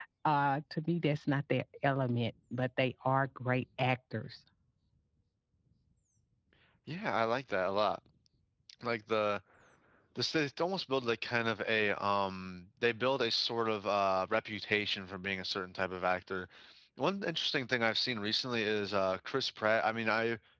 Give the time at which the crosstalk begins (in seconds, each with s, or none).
none